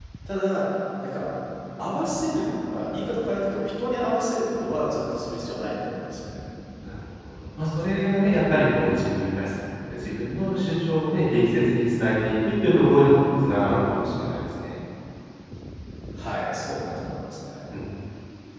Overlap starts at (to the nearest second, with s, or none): none